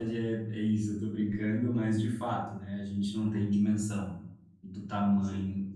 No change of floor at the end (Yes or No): Yes